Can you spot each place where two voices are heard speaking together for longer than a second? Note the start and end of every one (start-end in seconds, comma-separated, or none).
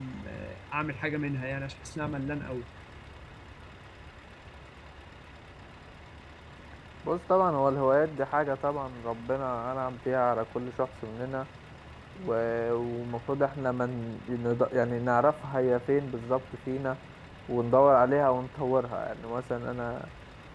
none